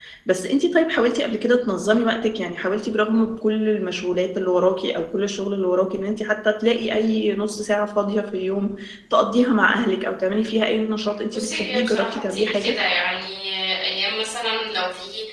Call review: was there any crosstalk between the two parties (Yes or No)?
Yes